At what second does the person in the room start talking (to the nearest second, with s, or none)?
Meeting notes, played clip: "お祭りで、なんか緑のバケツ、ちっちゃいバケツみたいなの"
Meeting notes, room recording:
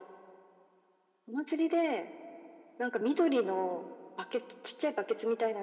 none